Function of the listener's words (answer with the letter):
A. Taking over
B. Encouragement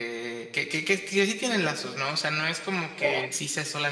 B